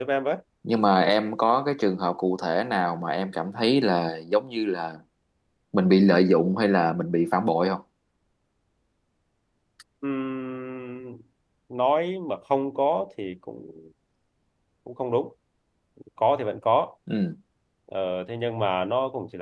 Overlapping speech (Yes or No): No